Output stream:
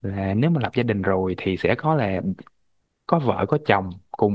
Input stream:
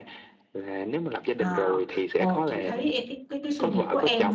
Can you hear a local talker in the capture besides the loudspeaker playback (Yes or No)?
Yes